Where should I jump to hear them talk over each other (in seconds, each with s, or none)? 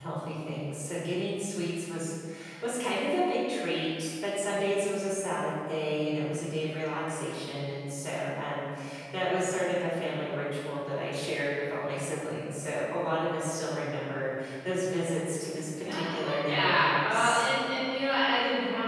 15.8 s